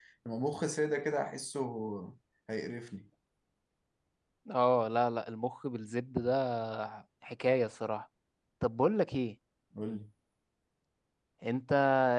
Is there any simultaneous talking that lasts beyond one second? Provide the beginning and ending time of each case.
none

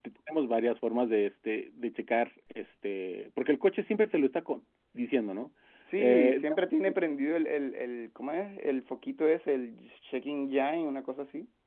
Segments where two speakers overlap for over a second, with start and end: none

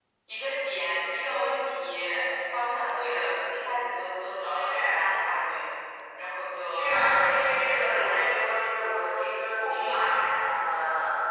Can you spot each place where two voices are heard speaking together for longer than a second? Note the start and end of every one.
6.7-8.2

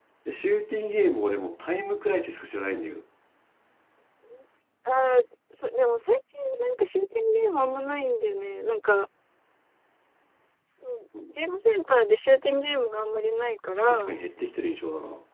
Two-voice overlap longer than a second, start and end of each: none

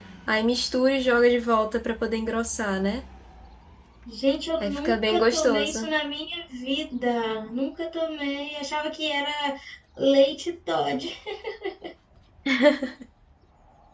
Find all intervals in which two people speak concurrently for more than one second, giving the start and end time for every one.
4.6-5.9

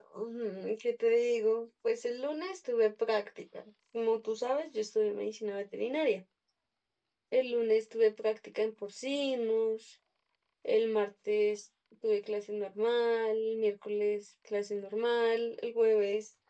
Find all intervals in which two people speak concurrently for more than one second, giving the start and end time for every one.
none

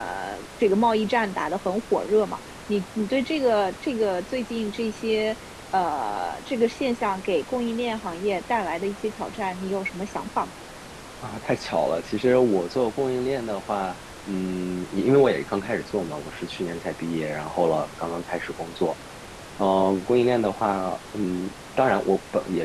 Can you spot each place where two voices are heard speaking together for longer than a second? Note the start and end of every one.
none

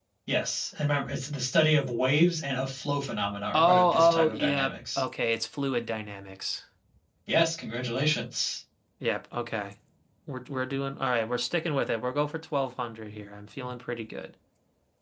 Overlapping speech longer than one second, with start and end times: 3.5-5.0

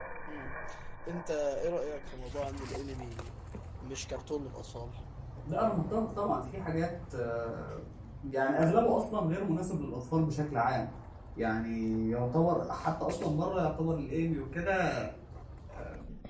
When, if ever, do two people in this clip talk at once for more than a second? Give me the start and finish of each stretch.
none

